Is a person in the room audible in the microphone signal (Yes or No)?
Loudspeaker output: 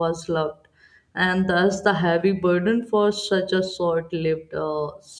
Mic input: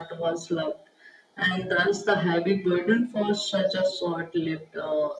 No